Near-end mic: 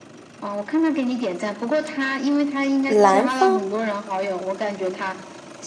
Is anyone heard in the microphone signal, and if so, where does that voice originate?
both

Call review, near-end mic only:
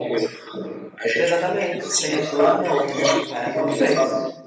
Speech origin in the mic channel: both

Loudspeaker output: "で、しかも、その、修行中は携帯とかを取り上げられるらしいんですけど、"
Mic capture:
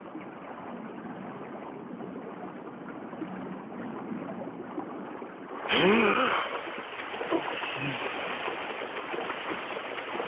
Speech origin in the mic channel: neither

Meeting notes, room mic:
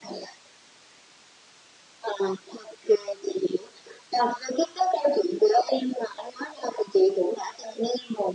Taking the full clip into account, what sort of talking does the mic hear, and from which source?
echo only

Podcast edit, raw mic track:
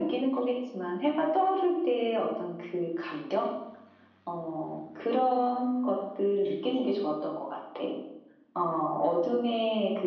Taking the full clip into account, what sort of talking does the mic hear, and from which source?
echo only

